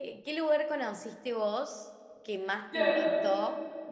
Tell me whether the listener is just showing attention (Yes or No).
Yes